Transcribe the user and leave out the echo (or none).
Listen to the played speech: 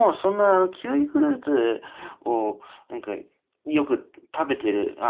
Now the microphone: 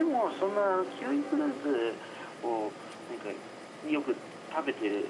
none